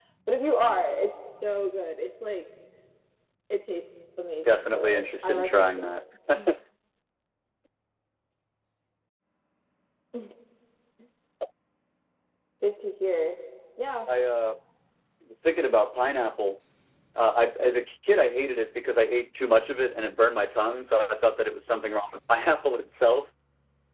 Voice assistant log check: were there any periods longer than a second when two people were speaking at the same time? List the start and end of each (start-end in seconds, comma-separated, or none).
4.5-5.9